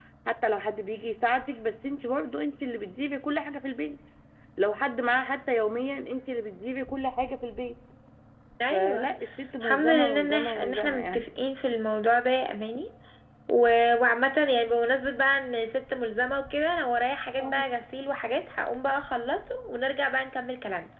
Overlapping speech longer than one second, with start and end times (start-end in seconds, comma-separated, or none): 9.6-11.2